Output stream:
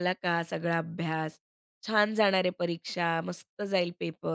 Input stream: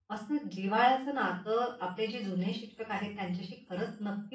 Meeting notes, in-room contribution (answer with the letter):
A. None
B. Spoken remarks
B